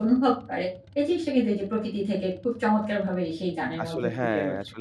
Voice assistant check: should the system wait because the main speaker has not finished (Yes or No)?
No